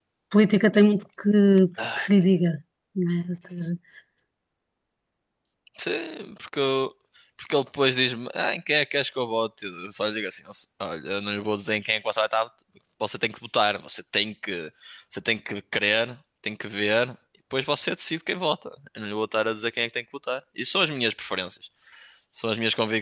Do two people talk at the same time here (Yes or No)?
No